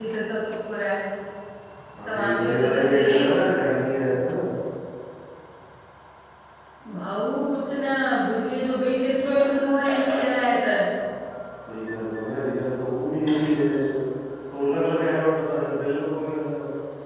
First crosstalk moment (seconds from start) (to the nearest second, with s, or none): 2 s